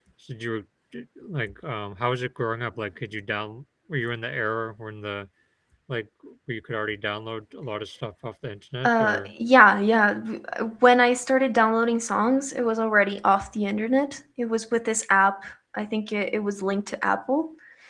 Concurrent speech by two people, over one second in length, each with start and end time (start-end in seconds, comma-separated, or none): none